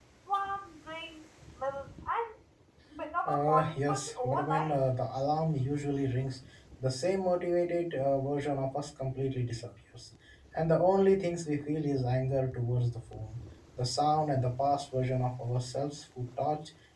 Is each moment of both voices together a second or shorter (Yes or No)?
No